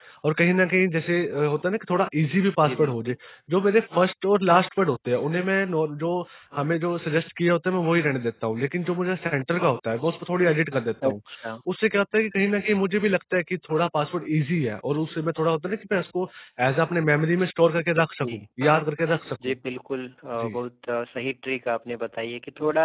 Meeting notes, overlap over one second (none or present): none